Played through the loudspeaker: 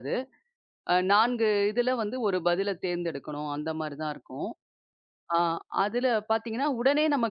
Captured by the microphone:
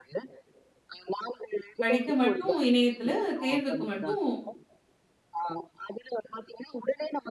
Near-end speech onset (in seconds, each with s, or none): 1.8 s